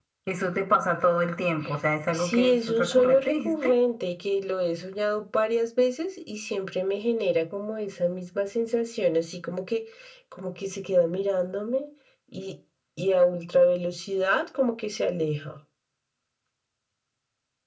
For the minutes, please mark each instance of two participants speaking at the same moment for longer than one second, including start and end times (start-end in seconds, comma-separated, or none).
2.1-3.8